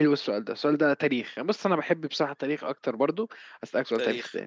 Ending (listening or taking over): listening